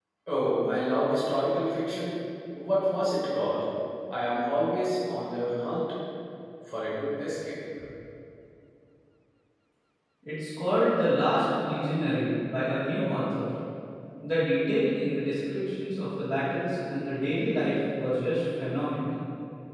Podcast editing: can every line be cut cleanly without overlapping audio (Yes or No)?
Yes